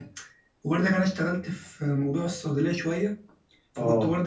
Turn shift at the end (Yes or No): No